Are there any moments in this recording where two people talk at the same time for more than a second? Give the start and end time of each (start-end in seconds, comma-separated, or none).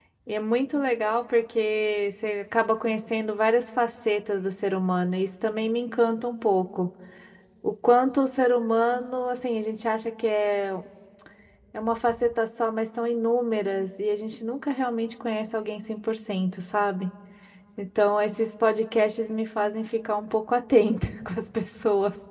none